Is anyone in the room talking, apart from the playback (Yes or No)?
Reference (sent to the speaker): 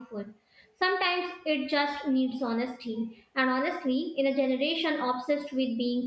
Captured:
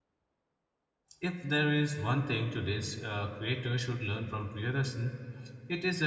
Yes